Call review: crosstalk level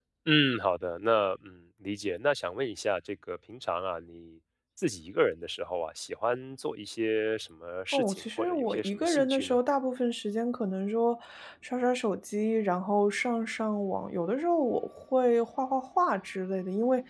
present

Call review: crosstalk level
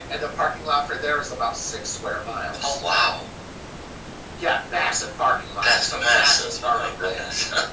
present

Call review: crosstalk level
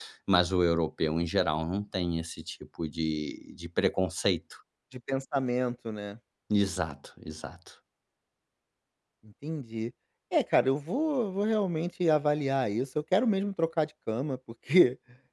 none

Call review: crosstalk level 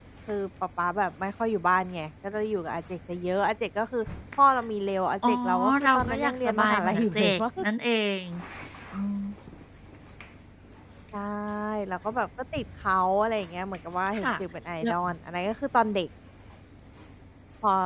present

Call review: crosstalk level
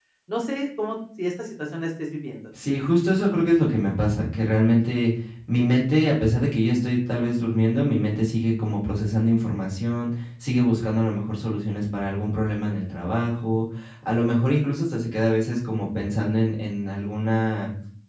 none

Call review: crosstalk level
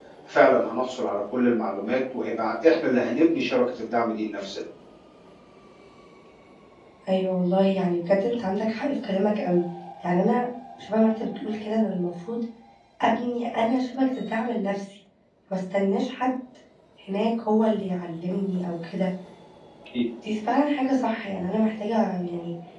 none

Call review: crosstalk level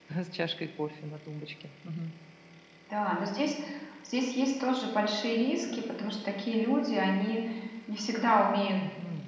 none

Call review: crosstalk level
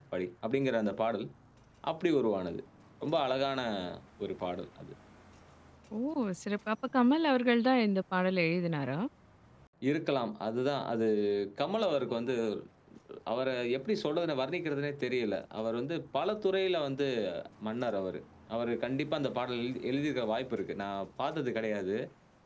none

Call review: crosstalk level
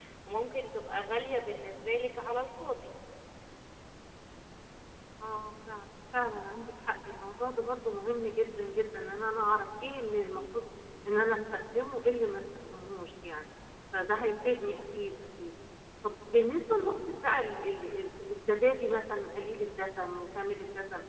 none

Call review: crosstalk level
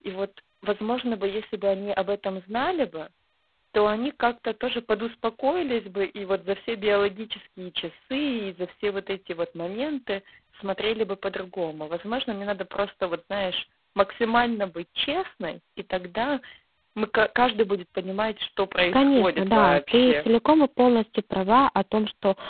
present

